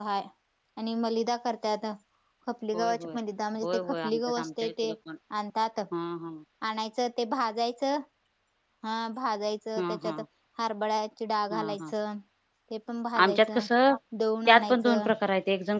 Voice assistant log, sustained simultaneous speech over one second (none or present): present